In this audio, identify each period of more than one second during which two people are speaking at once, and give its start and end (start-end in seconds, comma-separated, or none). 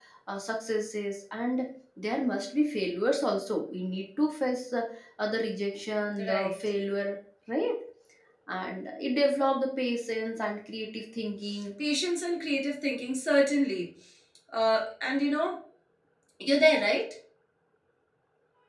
none